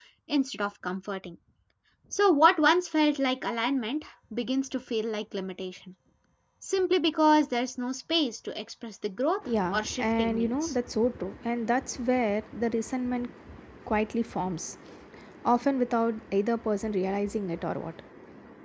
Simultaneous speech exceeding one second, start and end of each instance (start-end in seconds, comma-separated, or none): 9.4-10.7